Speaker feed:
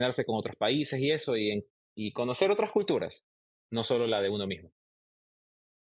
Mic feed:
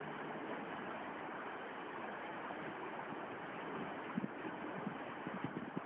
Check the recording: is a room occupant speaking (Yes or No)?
No